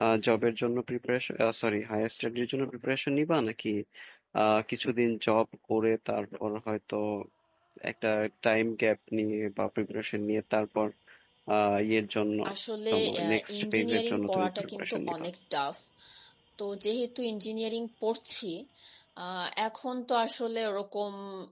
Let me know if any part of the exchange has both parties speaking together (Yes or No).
Yes